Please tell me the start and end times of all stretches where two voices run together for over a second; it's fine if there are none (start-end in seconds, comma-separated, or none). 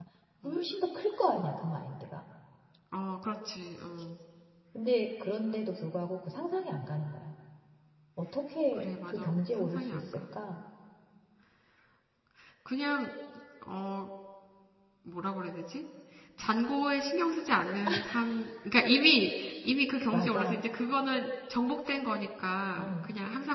8.7-10.2